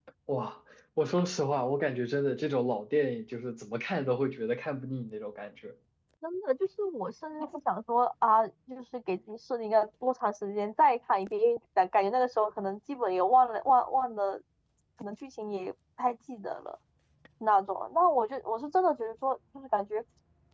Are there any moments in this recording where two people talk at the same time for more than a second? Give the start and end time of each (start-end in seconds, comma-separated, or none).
none